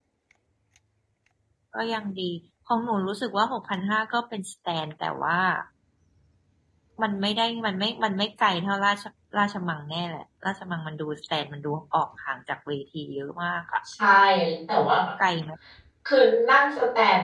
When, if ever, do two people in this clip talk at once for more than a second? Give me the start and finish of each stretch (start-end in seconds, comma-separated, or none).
none